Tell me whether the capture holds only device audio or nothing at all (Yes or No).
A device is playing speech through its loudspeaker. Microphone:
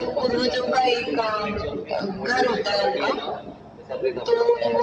Yes